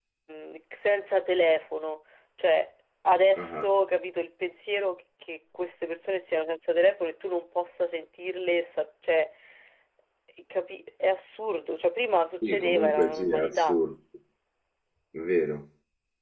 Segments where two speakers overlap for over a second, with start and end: 12.4-13.8

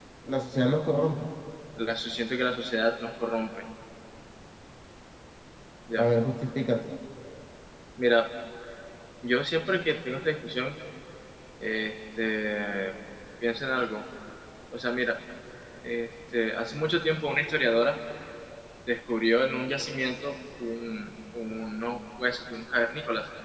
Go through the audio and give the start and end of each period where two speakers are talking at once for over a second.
none

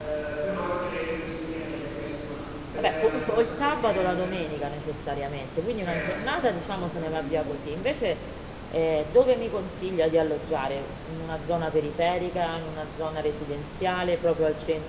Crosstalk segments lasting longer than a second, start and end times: 2.8-4.3, 5.8-7.4

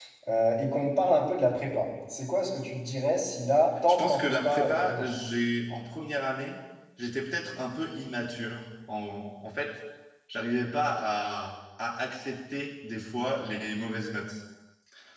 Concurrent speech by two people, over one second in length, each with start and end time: 3.9-5.1

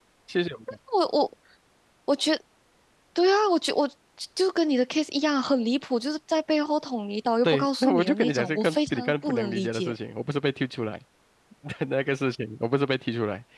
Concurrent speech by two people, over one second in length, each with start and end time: 7.4-9.9

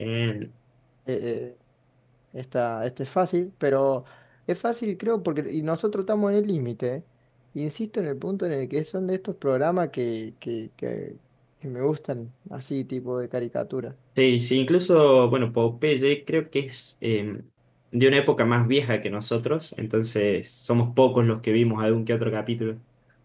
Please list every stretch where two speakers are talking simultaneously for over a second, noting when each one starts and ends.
none

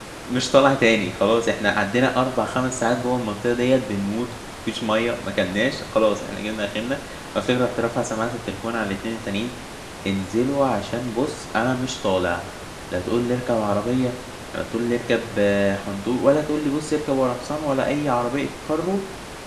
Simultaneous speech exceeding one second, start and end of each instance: none

